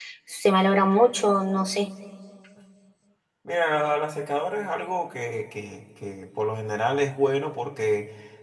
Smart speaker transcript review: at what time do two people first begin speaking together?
none

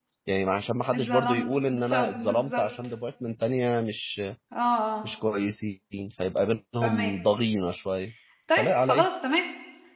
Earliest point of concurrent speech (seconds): 0.9 s

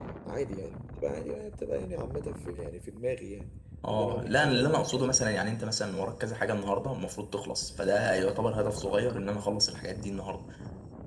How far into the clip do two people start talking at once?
3.9 s

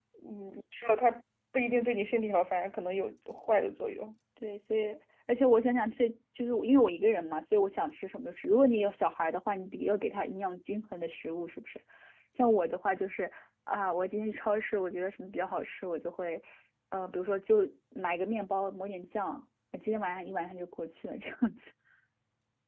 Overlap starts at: none

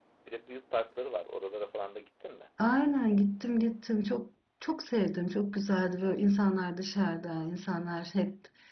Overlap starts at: none

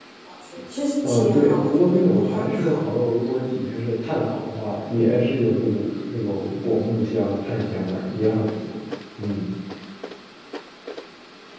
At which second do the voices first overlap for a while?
1.0 s

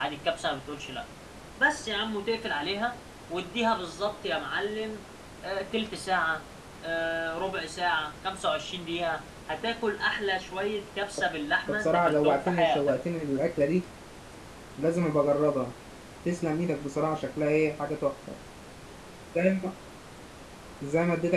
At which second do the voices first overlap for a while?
11.7 s

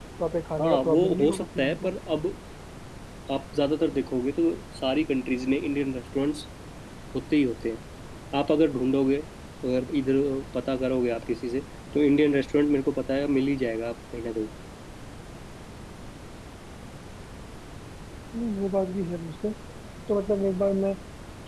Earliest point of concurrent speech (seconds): 0.6 s

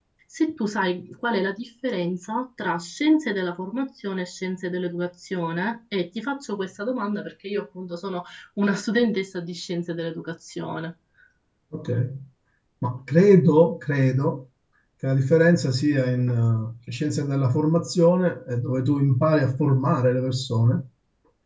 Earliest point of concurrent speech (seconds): none

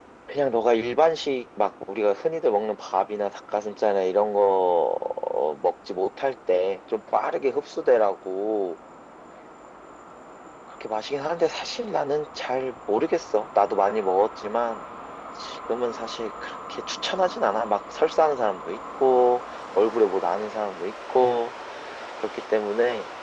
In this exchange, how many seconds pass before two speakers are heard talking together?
none

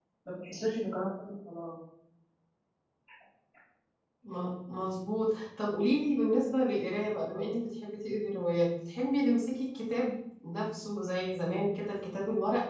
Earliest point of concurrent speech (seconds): none

